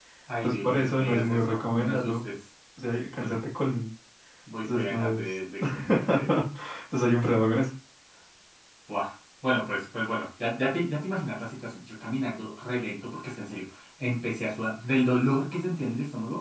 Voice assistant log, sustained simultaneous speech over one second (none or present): present